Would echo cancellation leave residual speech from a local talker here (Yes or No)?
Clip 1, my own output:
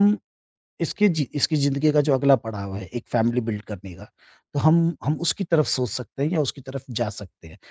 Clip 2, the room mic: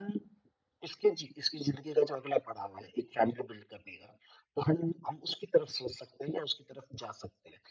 No